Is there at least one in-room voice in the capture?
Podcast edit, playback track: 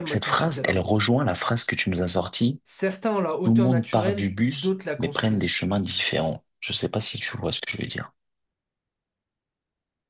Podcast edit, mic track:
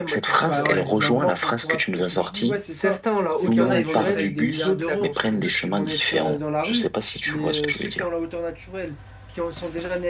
Yes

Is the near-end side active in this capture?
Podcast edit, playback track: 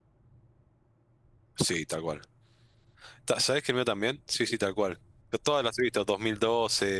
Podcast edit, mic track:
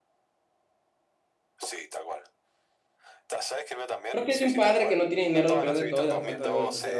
Yes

